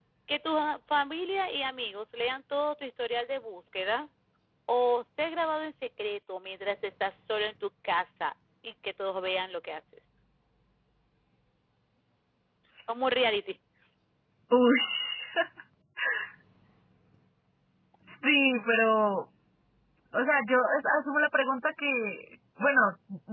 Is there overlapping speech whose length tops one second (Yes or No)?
No